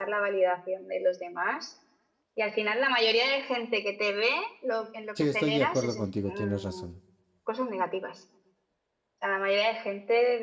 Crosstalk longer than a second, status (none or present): present